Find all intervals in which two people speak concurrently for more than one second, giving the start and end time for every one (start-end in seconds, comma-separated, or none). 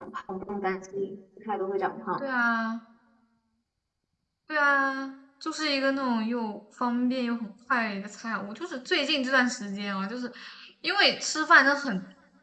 none